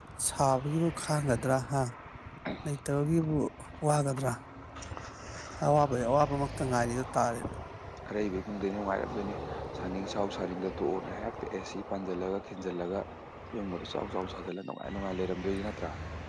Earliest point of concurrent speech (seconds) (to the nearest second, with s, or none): none